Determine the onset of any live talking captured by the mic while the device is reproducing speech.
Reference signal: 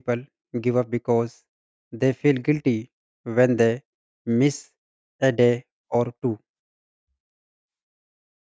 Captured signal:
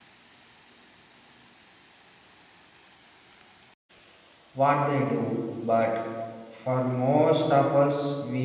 5 s

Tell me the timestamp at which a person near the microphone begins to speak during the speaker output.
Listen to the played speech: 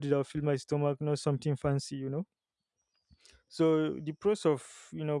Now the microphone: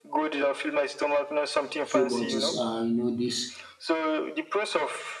2 s

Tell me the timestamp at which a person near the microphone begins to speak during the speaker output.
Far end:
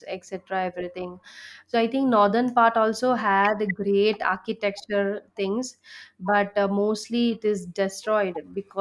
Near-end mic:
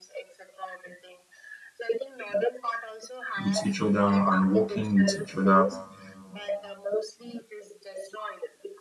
3 s

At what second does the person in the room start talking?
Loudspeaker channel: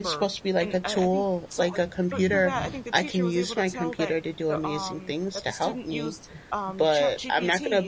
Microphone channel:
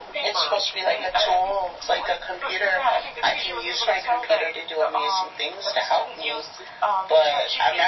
none

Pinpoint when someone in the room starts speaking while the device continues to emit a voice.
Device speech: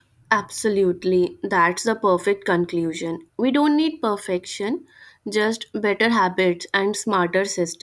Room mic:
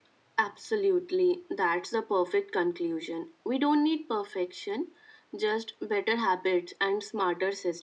none

